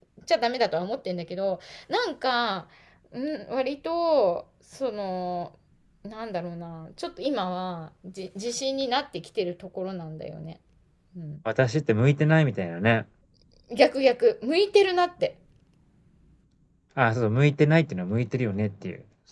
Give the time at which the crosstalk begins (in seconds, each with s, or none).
none